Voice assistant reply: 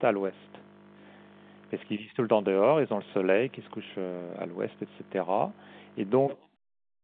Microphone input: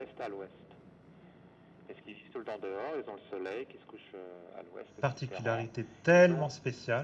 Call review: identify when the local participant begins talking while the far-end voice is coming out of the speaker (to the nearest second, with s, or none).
5 s